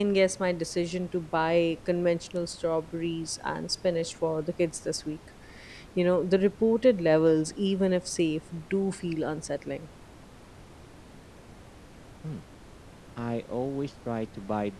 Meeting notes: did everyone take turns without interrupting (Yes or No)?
Yes